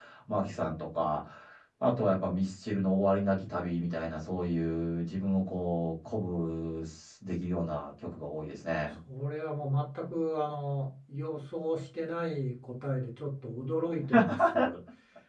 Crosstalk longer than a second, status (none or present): none